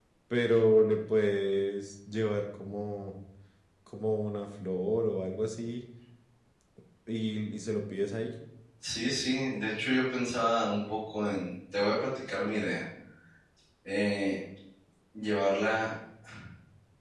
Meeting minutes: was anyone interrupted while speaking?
No

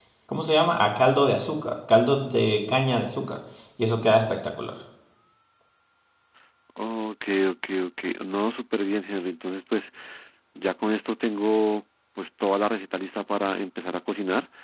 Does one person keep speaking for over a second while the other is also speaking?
No

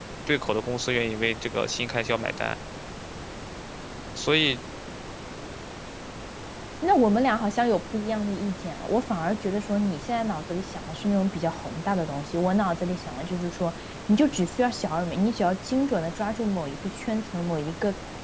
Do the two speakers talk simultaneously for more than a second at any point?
No

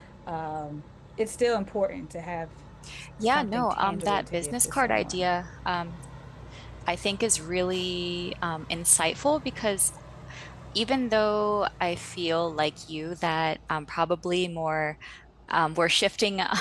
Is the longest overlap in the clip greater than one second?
Yes, from 3.2 s

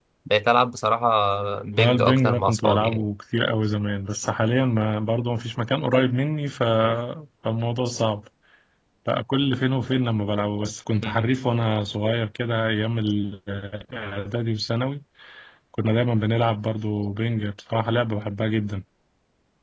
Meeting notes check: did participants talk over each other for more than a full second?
Yes, from 1.8 s

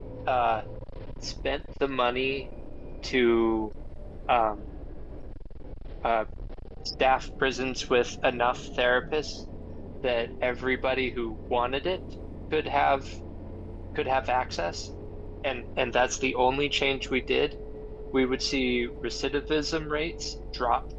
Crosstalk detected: No

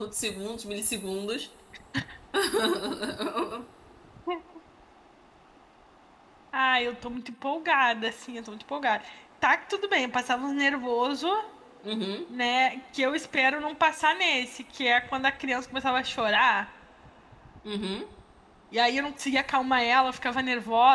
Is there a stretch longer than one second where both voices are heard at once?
No

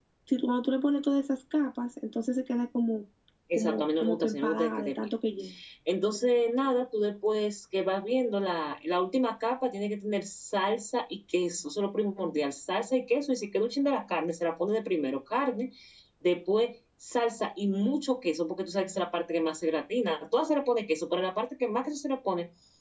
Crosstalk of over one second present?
Yes, from 3.5 s

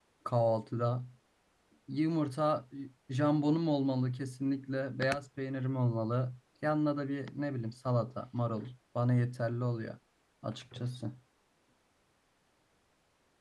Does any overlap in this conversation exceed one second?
No

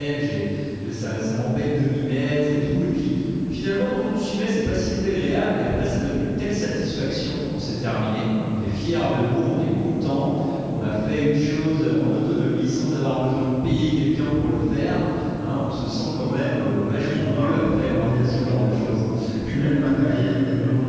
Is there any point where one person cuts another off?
Yes, from 16.6 s

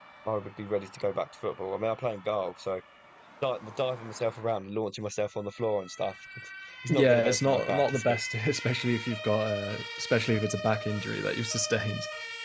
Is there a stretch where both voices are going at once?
Yes, from 6.9 s

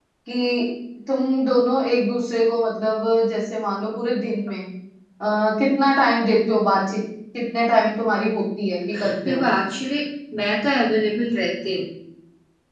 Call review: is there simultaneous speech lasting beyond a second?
No

